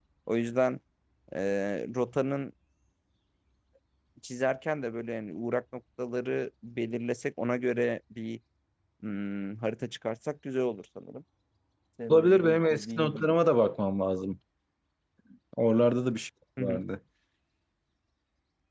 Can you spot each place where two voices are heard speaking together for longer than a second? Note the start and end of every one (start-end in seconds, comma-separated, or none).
12.1-13.5